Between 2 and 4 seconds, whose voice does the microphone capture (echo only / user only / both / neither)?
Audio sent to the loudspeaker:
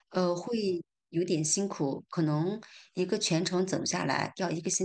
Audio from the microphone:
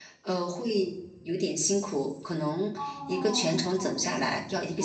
both